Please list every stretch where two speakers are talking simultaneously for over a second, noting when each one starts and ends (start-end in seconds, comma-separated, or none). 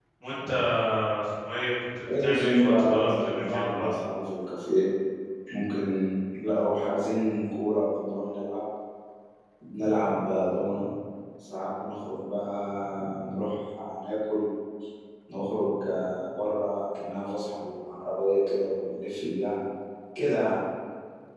2.2-3.9